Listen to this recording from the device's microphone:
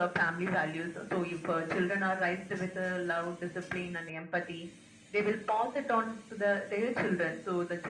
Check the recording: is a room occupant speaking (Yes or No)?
No